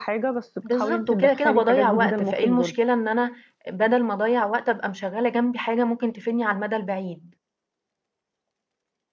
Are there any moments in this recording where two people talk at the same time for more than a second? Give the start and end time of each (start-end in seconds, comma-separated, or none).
0.7-2.7